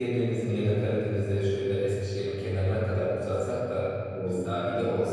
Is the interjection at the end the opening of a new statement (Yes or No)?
No